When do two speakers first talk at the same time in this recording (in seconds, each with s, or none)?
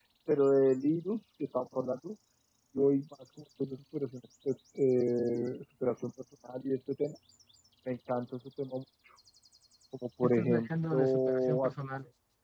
10.2 s